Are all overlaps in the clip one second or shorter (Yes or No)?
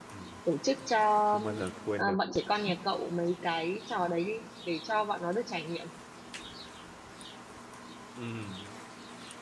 Yes